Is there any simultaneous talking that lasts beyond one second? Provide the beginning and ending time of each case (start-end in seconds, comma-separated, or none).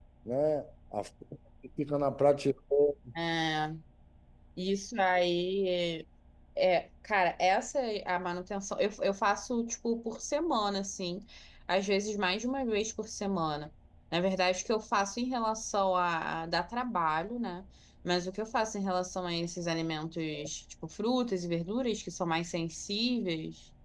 none